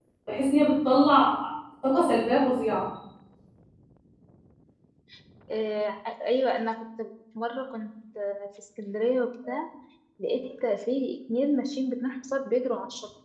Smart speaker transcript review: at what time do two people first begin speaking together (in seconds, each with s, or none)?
none